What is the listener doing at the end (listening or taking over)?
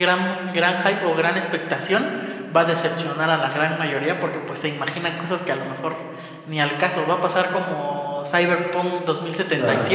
listening